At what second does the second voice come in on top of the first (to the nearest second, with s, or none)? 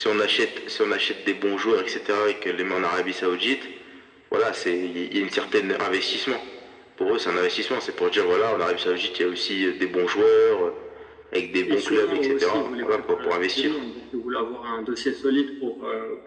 12 s